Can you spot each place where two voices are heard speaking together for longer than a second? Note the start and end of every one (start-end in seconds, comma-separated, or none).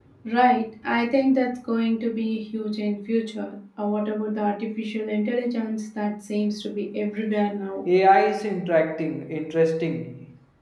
none